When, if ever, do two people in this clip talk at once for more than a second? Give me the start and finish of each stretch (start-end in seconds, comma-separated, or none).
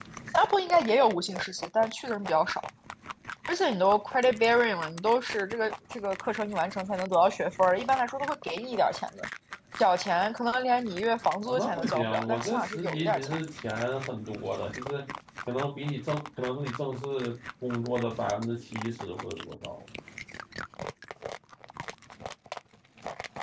11.4-13.4